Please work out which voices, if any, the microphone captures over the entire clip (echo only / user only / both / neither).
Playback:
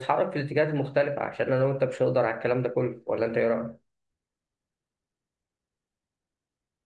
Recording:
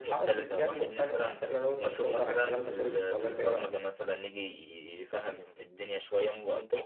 both